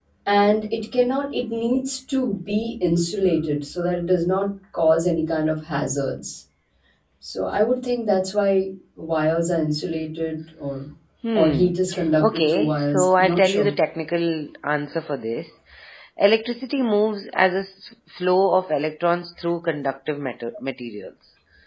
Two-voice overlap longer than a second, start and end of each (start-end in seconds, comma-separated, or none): 12.2-13.7